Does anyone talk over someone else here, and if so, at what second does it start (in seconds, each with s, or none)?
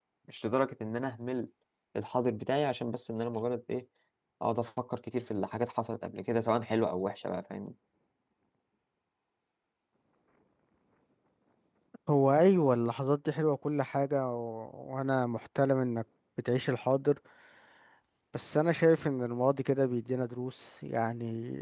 none